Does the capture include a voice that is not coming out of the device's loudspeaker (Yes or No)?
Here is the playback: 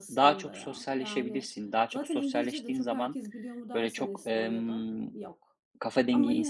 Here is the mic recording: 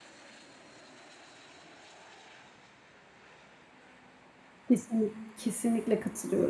Yes